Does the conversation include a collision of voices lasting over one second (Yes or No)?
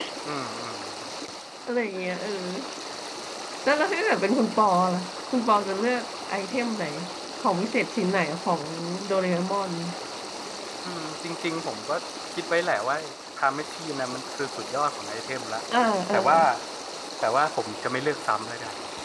No